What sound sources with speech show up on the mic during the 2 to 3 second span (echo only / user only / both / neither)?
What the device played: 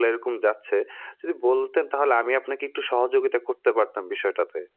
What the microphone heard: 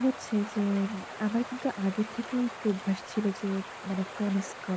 user only